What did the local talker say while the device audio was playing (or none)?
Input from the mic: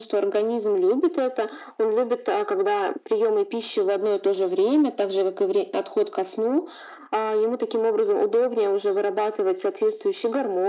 none